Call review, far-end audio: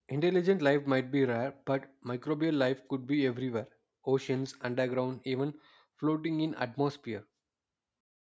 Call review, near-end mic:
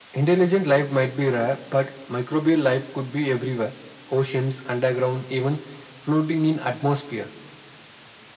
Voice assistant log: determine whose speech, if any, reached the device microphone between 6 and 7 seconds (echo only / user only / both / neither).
echo only